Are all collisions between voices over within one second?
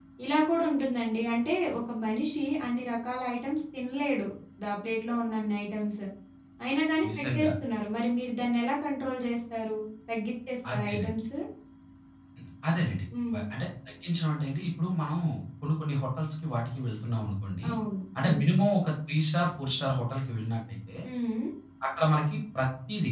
Yes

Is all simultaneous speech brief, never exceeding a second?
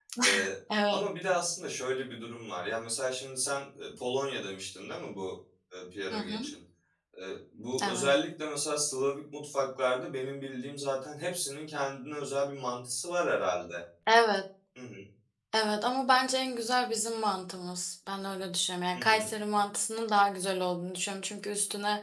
Yes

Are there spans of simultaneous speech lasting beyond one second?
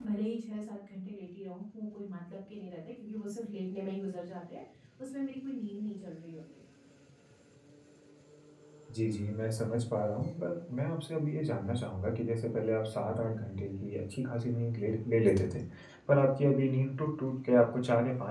No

